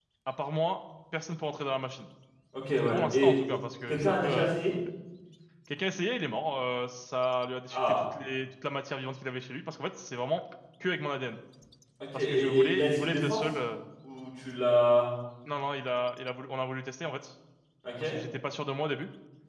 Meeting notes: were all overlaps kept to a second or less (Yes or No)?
No